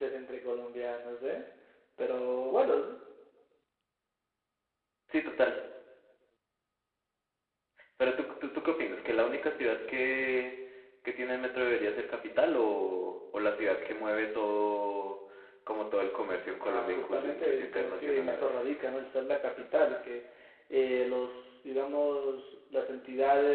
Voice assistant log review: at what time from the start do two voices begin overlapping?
17 s

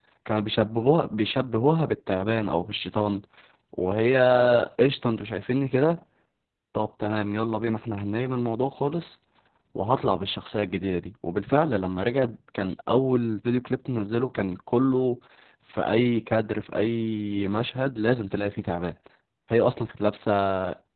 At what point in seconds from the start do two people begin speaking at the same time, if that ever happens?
none

